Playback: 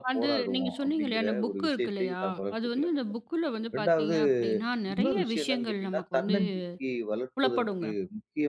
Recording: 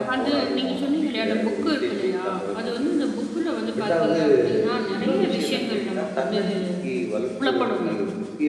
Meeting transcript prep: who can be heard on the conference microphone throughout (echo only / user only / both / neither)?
echo only